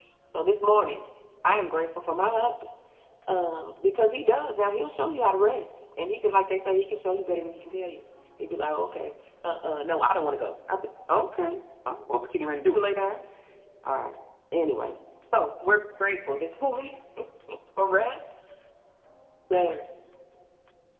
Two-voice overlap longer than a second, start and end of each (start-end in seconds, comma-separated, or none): none